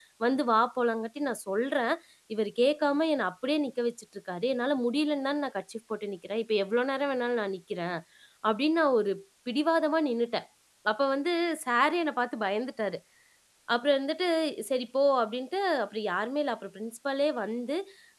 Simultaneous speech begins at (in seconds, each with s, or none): none